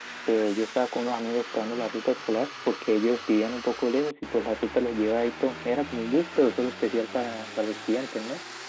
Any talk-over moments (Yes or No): No